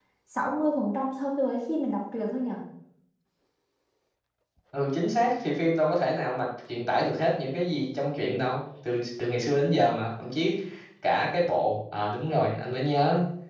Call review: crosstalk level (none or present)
none